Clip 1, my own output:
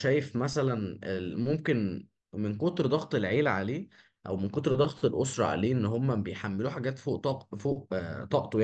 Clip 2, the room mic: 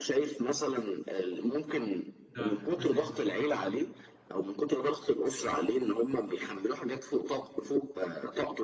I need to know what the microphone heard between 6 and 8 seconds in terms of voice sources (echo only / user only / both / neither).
echo only